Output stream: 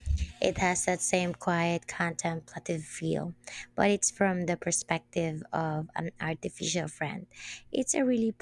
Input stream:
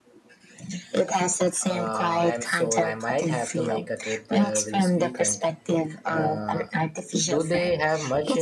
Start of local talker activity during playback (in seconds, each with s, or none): 1.6 s